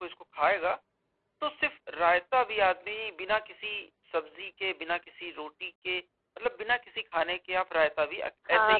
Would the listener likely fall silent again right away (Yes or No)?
No